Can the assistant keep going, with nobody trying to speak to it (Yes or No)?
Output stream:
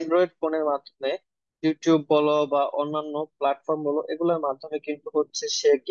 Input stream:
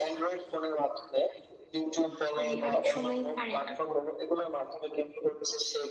No